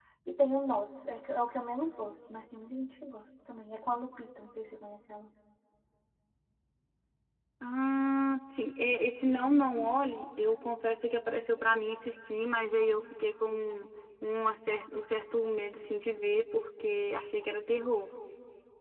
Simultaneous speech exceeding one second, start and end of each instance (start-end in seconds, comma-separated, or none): none